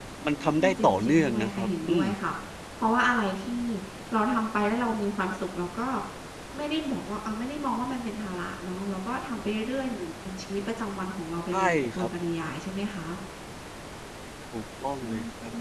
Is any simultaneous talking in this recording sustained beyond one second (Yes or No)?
Yes